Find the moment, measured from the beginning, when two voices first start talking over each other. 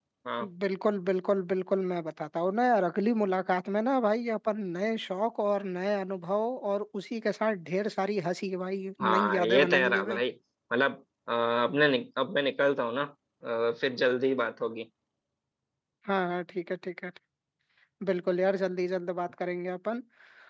9.0 s

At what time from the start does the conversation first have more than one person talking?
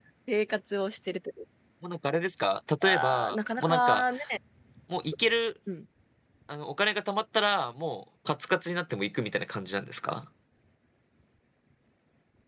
2.8 s

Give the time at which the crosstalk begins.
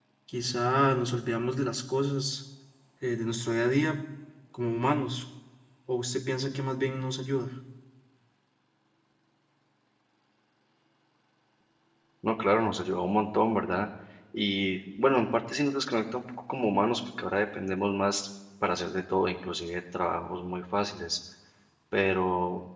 none

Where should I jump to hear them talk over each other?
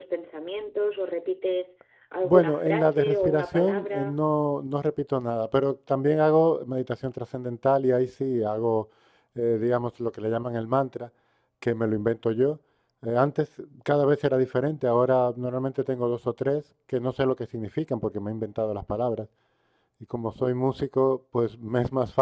2.2 s

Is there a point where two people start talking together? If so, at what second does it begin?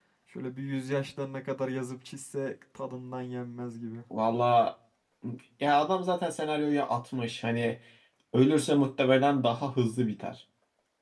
none

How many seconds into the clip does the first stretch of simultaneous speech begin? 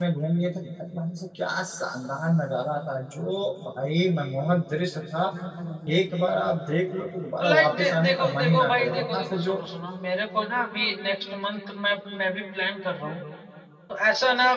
7.4 s

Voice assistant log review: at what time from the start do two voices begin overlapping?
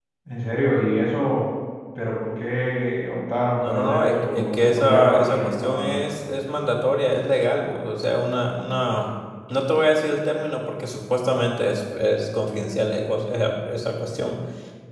3.6 s

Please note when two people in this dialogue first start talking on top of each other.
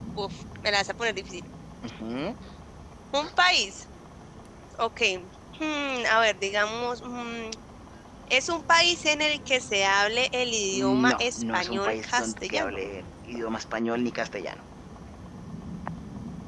10.7 s

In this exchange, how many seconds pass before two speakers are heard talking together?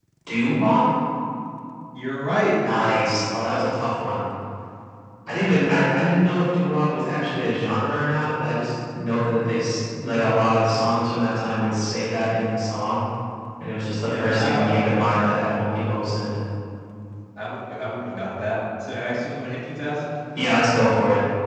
14.0 s

